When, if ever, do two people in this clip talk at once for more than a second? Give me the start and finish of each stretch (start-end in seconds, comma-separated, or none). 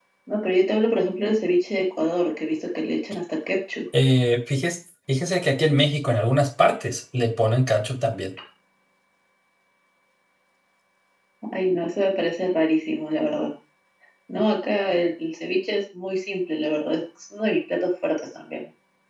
none